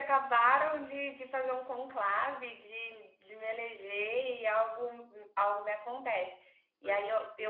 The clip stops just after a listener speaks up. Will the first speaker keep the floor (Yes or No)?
Yes